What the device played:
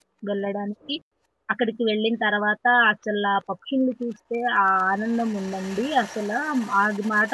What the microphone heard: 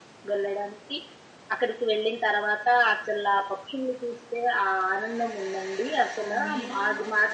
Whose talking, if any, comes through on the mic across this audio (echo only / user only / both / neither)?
both